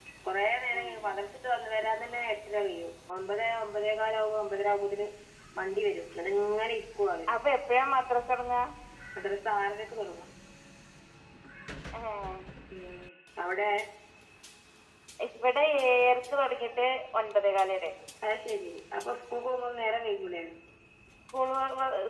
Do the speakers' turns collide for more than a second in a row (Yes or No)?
No